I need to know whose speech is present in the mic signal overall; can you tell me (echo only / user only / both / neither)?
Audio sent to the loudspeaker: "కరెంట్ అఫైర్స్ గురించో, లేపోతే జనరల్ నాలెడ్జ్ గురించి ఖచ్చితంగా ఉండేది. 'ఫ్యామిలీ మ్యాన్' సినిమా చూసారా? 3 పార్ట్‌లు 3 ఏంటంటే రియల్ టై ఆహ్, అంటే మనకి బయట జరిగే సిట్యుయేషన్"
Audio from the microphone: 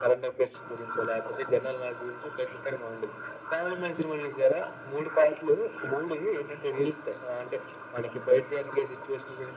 echo only